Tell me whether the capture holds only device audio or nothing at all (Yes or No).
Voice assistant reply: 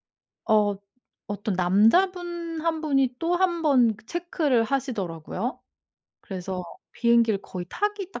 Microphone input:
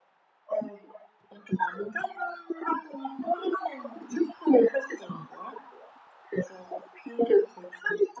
Yes